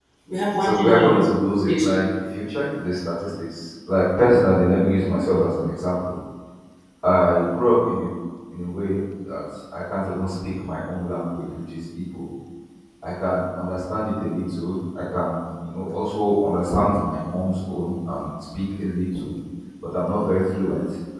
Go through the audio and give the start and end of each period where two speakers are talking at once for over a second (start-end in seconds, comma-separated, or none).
0.6-1.8